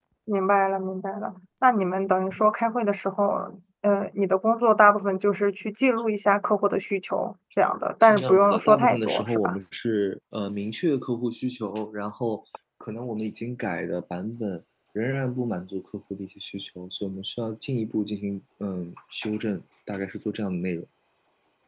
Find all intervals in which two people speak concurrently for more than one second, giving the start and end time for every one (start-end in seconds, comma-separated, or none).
8.0-9.6